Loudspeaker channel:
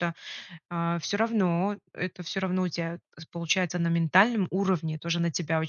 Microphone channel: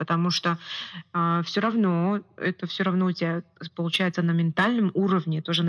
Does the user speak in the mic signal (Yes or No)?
No